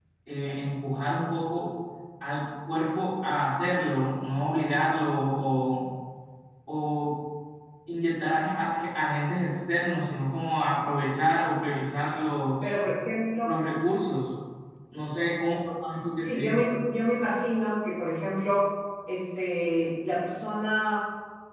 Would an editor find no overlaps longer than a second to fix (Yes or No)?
Yes